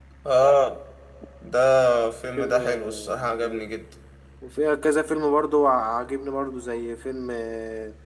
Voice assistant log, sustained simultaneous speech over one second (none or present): present